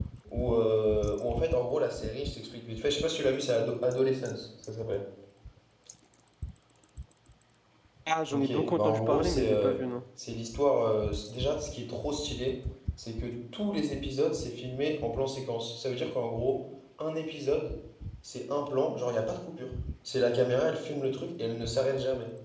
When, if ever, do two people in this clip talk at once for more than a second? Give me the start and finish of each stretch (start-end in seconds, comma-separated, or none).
8.3-9.8